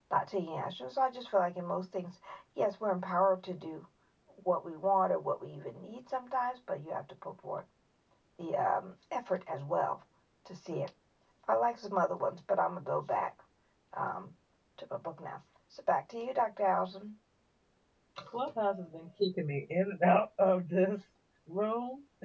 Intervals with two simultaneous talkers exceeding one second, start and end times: none

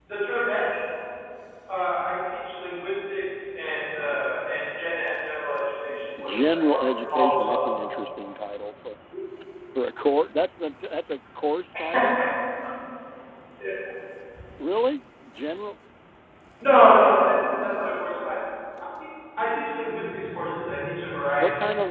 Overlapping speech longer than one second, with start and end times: 6.2-7.6

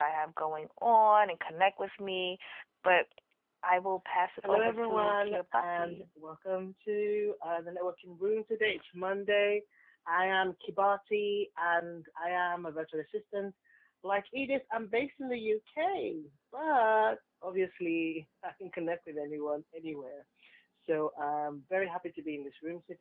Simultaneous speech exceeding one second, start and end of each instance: 4.4-6.0

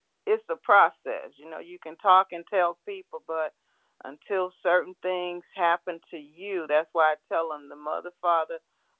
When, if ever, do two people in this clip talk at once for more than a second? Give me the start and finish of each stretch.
none

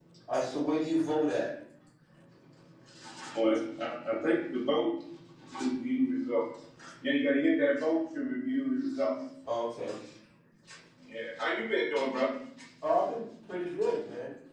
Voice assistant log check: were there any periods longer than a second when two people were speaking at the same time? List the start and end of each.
none

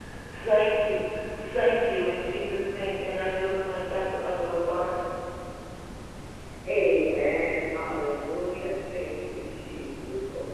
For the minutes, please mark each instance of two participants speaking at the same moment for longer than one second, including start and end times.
none

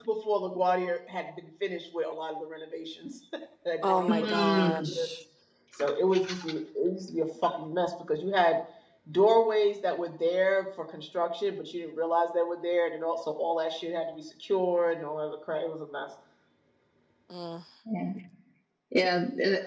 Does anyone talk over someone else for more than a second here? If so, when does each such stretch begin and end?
3.8-5.1

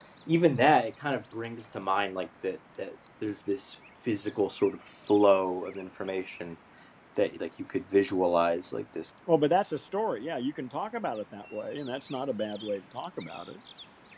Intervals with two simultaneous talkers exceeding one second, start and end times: none

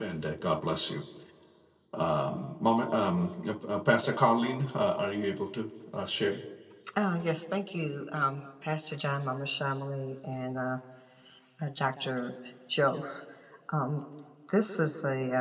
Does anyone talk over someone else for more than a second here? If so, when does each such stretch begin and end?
none

